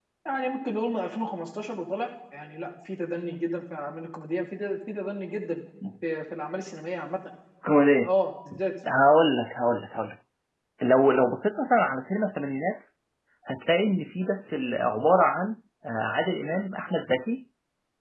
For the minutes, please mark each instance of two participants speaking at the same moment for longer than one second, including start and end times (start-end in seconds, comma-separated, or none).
none